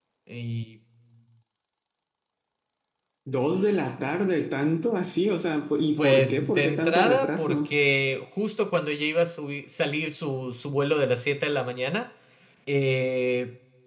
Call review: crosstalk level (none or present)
present